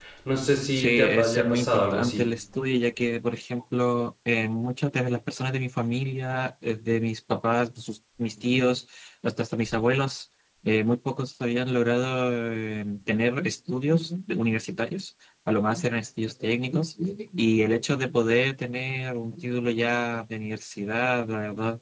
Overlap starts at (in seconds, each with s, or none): 0.7 s